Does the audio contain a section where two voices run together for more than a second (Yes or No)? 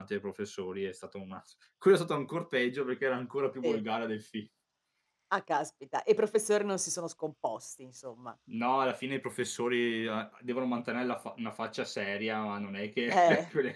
No